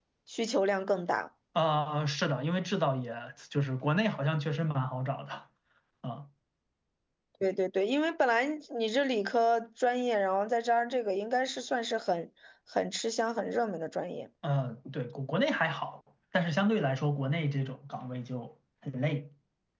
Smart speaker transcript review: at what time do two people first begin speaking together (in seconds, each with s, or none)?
none